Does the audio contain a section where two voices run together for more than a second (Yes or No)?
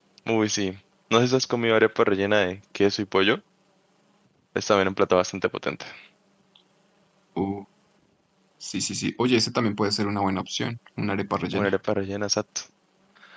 No